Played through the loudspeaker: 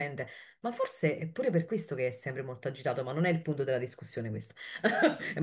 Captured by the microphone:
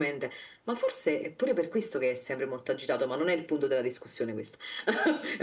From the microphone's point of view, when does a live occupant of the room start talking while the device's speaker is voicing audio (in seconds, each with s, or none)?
none